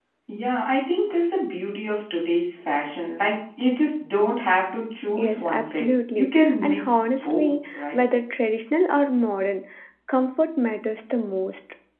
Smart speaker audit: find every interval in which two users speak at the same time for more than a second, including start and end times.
5.2-8.0

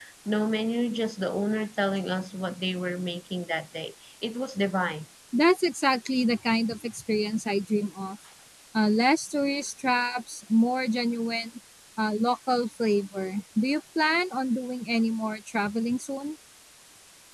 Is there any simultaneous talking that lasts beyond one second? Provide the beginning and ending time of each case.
none

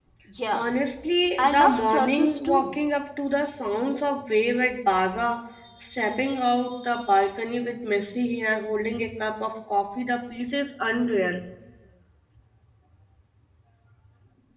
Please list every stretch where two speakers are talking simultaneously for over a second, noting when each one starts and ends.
1.4-2.7

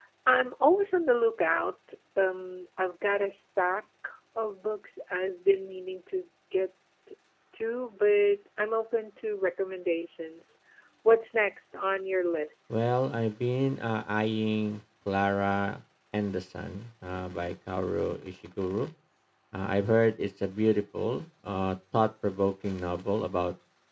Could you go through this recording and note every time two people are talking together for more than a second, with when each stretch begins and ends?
none

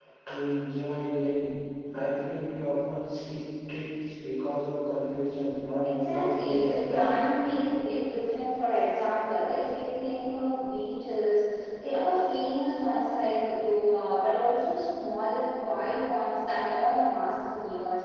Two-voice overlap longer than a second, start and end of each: 5.8-7.2

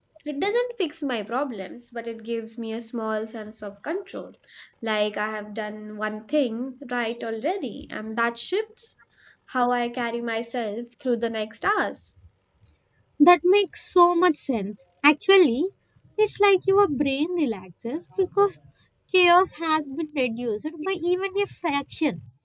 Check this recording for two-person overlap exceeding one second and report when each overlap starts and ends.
none

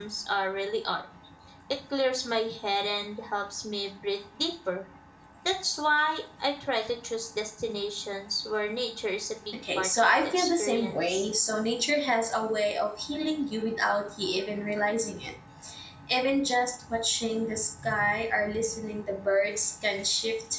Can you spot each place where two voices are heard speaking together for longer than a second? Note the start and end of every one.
9.8-11.2

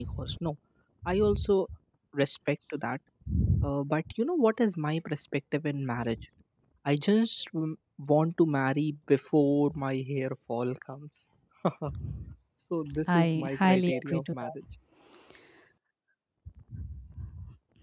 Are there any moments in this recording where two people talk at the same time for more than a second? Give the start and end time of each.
13.1-14.5

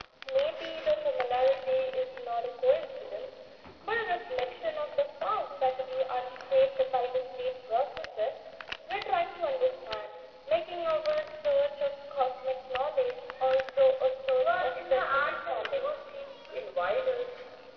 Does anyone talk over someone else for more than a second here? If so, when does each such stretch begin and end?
14.4-15.9

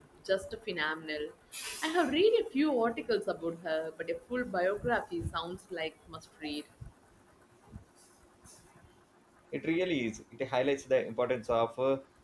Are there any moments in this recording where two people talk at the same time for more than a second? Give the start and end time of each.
none

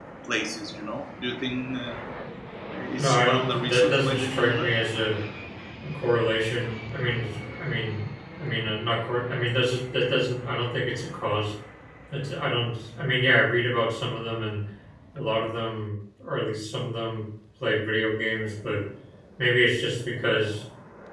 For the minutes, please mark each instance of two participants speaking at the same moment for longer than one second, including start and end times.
3.0-4.7

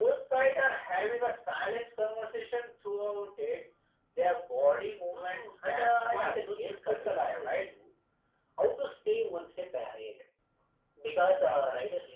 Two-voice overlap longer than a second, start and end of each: 5.1-7.7

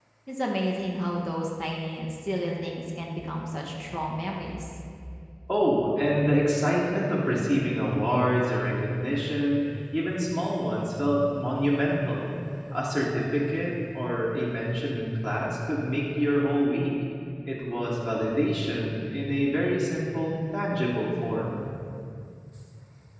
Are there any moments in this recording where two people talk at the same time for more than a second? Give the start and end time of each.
none

